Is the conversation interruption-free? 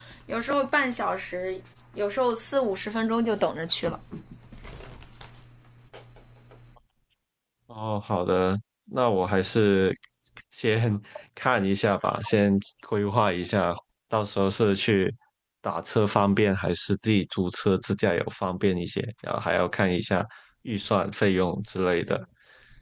Yes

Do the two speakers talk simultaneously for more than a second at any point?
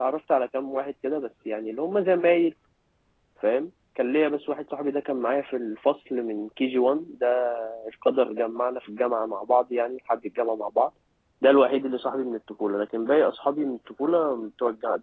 No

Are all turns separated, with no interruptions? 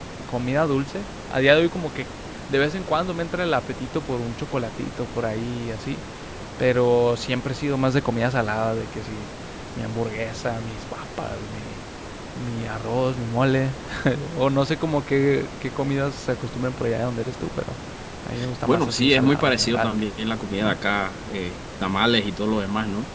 No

